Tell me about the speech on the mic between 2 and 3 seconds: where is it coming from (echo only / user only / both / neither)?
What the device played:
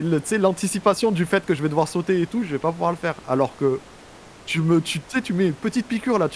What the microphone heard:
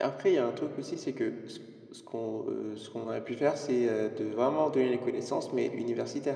user only